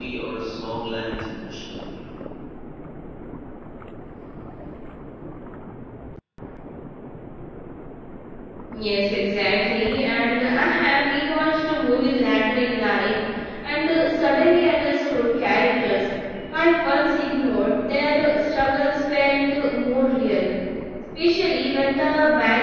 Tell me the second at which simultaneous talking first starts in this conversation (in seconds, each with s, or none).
none